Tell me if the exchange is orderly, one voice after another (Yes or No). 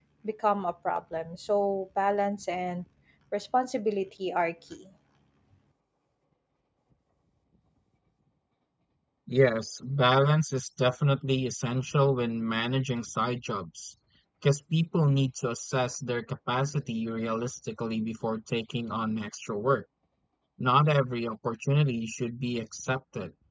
Yes